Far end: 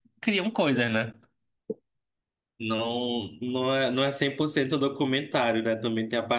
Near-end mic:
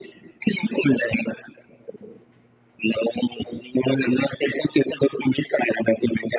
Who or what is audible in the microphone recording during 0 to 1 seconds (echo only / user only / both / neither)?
echo only